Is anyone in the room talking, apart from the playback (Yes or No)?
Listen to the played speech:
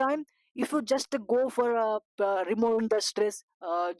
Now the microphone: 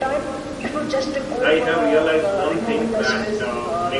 Yes